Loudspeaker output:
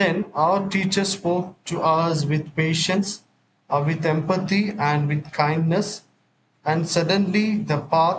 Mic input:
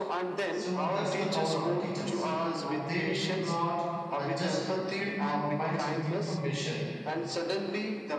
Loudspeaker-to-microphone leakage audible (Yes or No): Yes